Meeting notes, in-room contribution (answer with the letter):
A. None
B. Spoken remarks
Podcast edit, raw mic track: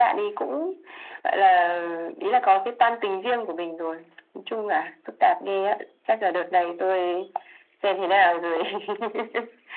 A